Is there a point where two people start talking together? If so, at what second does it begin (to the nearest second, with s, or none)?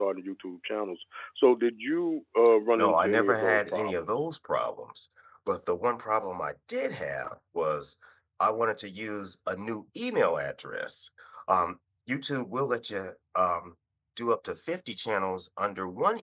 3 s